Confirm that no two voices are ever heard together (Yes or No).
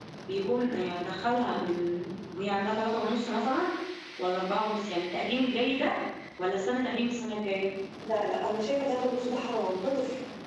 Yes